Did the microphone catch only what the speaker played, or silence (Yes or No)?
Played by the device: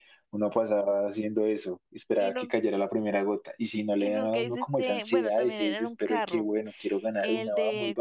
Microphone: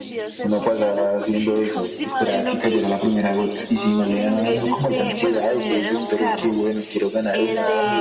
No